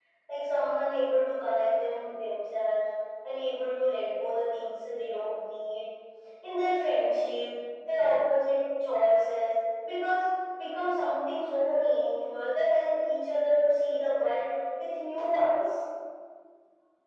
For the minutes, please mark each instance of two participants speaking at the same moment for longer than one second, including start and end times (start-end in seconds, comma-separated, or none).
none